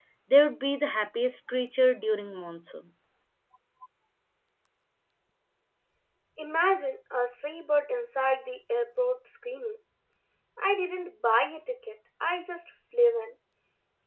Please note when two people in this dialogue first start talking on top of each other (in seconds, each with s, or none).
none